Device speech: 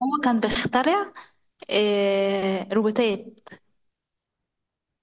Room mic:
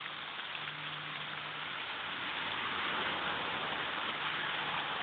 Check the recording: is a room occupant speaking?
No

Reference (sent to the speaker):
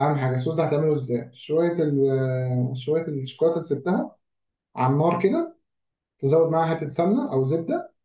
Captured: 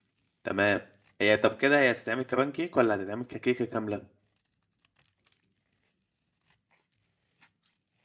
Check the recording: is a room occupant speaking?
Yes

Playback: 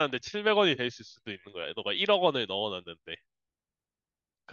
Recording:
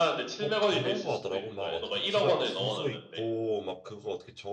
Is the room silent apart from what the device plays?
No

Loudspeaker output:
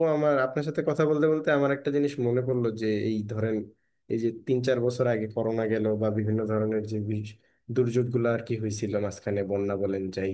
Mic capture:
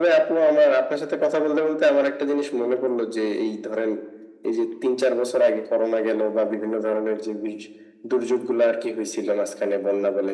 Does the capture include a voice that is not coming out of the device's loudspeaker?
No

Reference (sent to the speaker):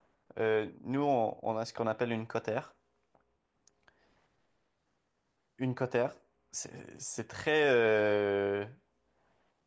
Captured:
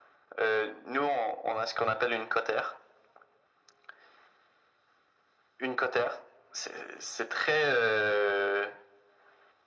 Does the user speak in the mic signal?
No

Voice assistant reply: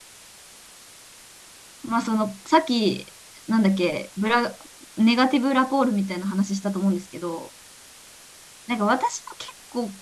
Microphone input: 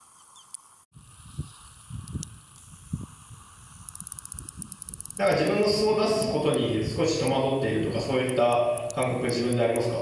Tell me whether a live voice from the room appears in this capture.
Yes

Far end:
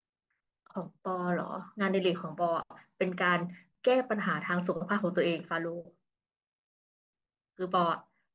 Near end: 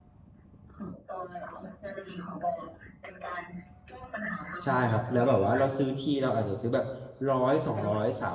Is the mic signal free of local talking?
No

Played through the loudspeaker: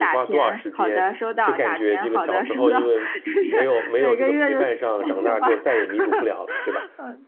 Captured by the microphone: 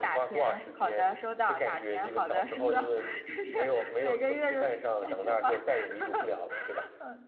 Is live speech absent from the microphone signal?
Yes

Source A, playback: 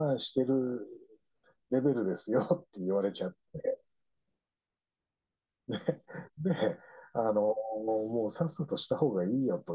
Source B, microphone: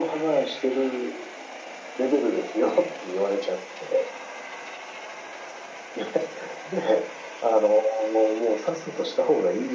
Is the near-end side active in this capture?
No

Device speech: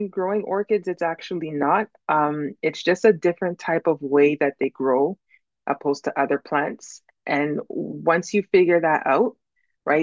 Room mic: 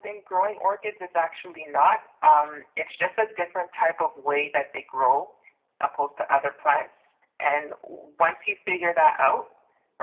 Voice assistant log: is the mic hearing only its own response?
Yes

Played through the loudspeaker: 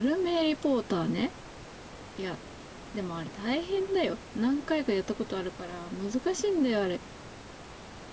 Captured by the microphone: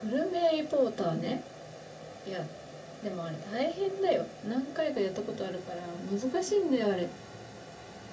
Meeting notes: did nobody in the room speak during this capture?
Yes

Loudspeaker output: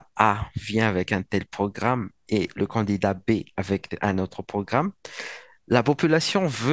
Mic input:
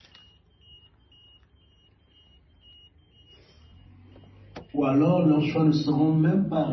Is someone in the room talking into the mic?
Yes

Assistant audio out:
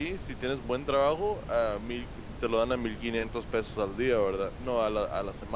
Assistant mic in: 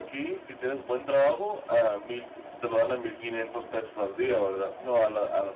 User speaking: No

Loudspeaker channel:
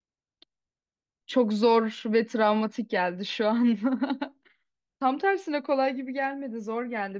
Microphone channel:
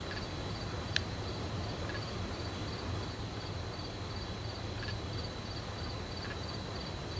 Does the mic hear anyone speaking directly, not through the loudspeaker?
No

